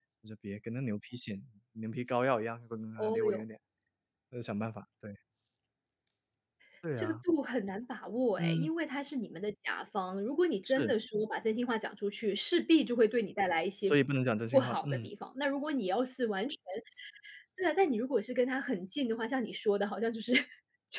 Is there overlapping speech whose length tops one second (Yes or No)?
No